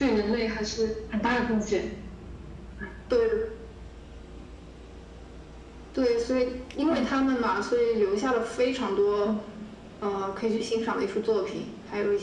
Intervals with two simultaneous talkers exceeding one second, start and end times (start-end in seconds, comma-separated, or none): none